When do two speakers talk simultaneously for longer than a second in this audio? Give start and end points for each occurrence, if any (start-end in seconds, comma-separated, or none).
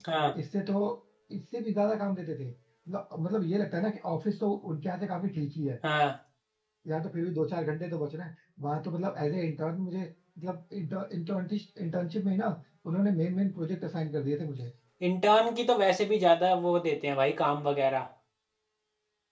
none